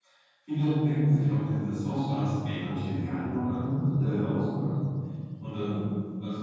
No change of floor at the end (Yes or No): Yes